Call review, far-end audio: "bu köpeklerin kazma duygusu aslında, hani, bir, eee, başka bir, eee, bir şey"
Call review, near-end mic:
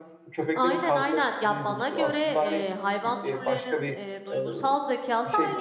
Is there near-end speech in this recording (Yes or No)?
Yes